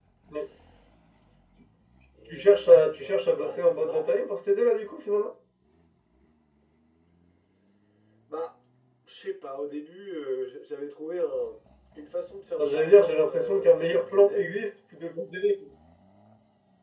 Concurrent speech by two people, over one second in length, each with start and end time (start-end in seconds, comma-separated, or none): 2.3-4.3, 12.6-14.4